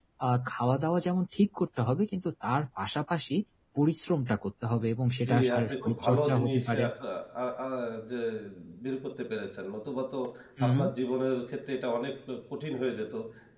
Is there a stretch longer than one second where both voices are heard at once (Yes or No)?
Yes